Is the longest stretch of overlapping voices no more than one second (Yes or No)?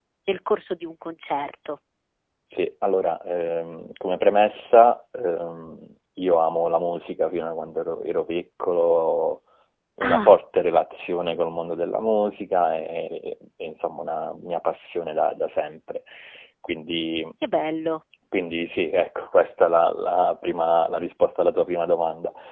Yes